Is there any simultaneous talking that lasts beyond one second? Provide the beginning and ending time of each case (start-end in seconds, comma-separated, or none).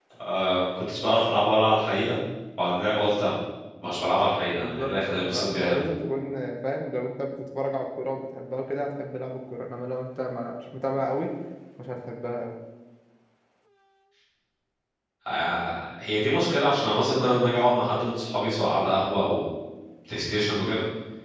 4.5-5.8